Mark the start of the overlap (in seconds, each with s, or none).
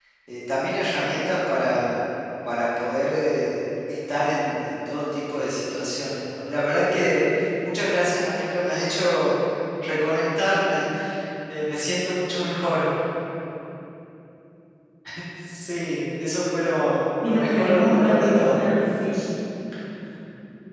17.2 s